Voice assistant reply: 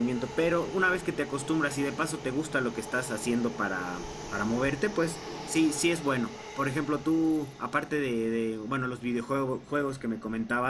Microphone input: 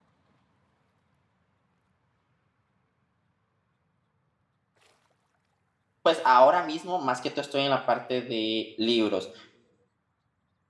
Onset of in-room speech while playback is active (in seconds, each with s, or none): 6.0 s